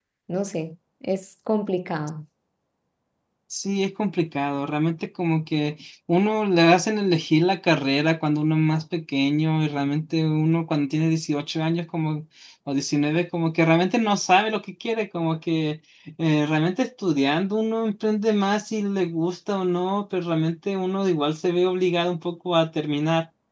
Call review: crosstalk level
none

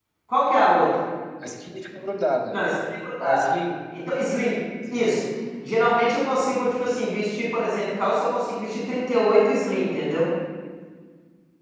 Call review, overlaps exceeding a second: none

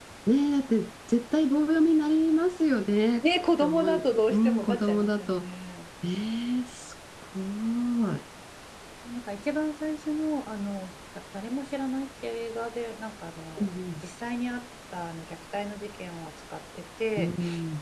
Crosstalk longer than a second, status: present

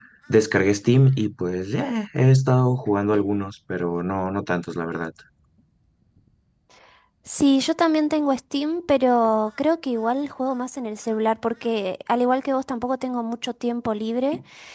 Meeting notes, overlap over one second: none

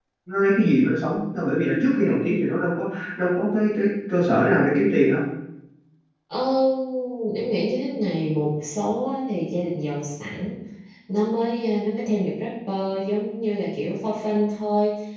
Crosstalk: none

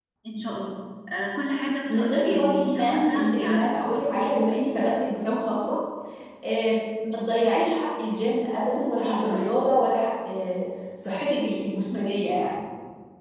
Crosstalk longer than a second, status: present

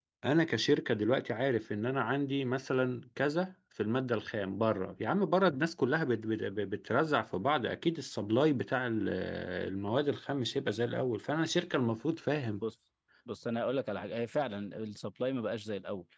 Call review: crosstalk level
none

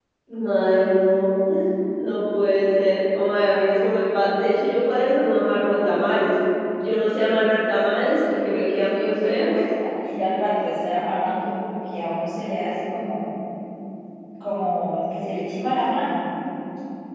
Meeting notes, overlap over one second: none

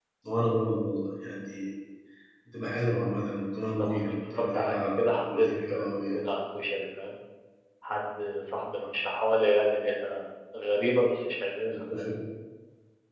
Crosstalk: present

